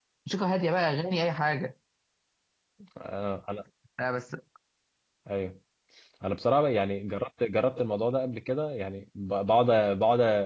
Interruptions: none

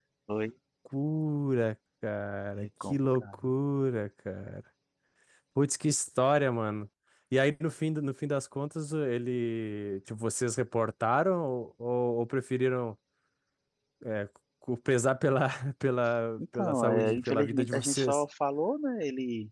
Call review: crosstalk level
present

